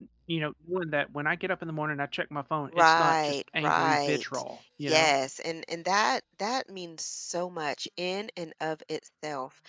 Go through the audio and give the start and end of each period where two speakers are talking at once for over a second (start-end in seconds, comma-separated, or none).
2.7-4.4